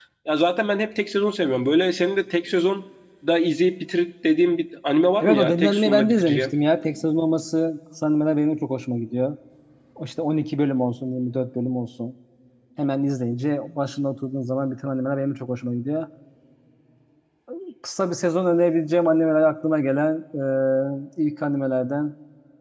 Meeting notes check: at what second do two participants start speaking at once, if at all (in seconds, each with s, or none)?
5.2 s